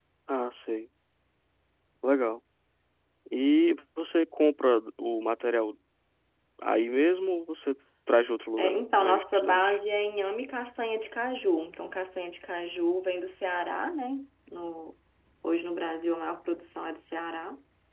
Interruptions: present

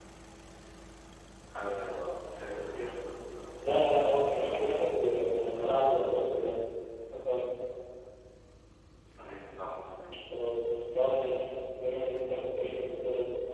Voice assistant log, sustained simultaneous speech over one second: none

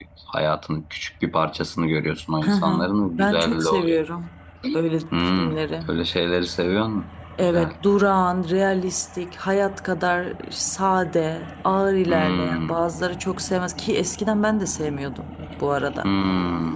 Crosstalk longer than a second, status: present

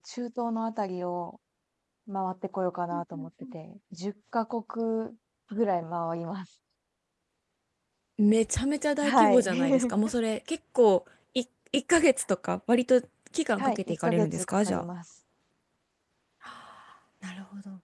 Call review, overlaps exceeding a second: present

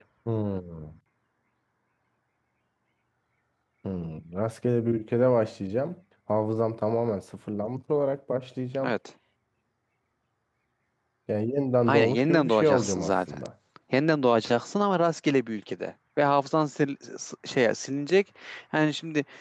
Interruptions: present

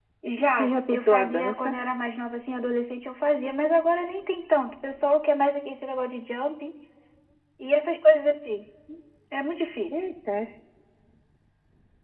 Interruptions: present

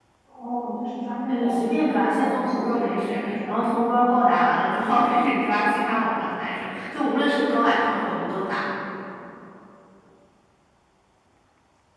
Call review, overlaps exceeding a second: present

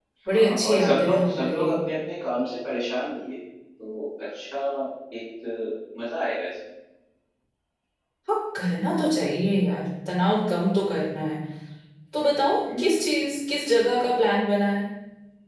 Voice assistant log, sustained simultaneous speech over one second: present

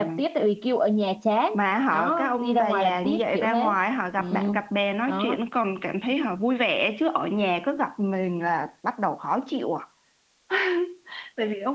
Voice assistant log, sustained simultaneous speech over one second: present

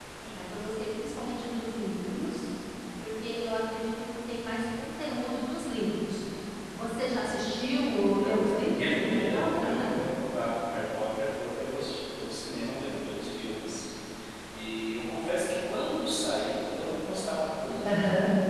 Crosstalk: present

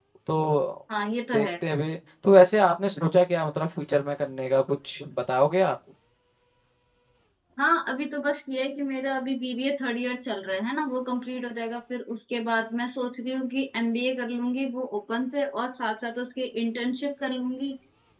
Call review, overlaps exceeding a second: none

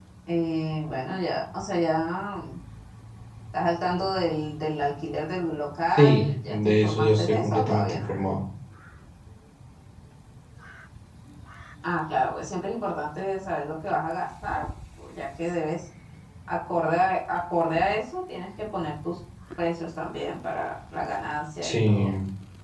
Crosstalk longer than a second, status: present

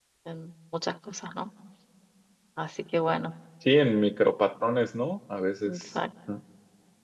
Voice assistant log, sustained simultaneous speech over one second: none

